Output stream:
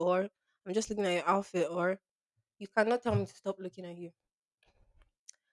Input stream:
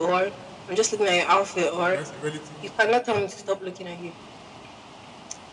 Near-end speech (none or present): present